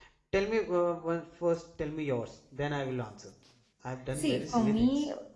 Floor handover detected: Yes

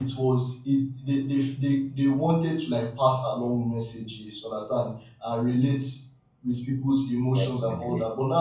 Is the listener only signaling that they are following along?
Yes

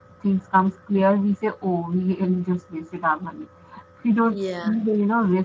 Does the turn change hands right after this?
No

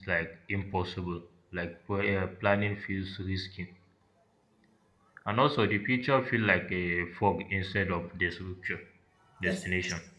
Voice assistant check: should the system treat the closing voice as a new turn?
Yes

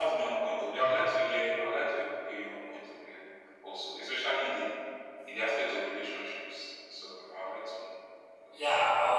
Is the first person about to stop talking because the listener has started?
Yes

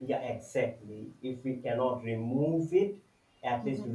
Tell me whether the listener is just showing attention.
Yes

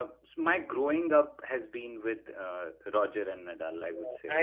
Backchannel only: No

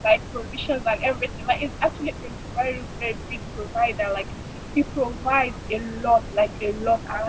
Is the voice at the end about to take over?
No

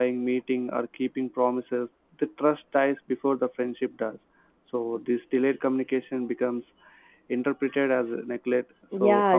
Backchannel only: No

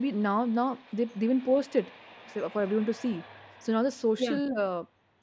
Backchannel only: Yes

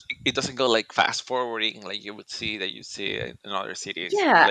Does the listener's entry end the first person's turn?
Yes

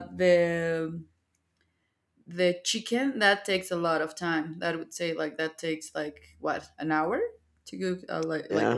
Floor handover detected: Yes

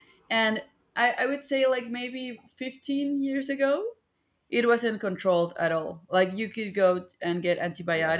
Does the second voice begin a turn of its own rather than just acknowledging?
No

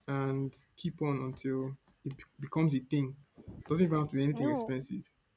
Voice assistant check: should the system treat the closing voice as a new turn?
No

